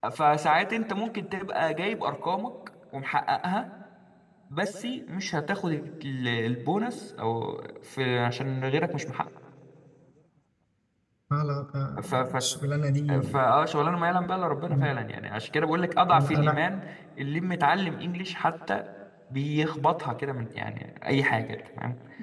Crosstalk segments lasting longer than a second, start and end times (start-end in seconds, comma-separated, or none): none